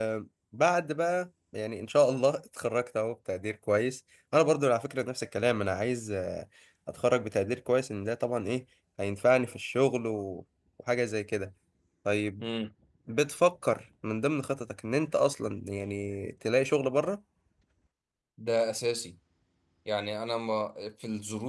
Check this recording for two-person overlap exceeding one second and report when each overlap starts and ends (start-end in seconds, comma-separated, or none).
none